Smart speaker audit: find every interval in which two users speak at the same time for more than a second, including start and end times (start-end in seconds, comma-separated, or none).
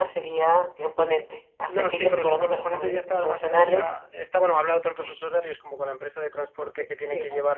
1.7-3.9